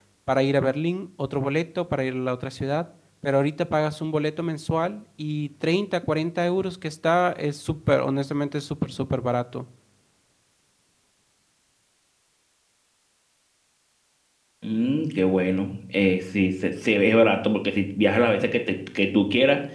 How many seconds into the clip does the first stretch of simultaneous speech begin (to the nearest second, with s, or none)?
none